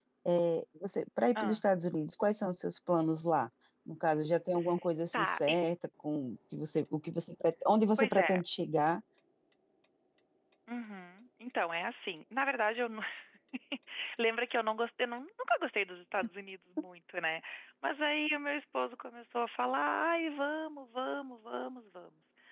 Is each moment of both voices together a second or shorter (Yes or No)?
Yes